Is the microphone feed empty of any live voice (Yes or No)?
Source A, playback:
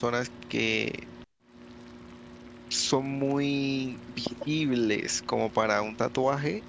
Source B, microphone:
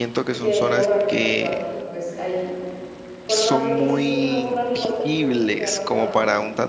No